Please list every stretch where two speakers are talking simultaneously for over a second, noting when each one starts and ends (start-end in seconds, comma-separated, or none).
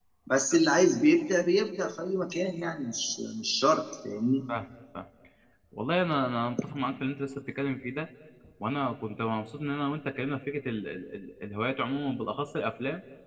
none